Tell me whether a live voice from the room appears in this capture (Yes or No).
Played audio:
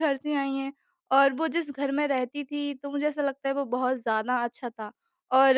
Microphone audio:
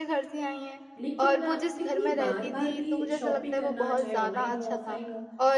Yes